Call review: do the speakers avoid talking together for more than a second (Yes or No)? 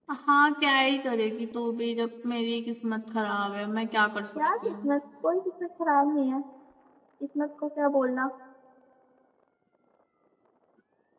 Yes